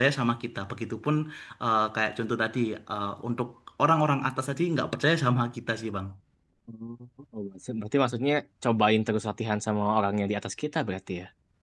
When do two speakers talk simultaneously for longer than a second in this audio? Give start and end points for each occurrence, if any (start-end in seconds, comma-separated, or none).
none